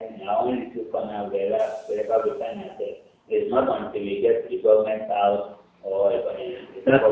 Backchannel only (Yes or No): No